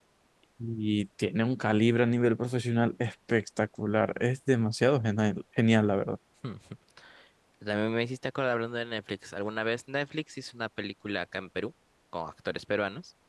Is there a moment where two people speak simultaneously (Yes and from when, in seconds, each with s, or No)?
No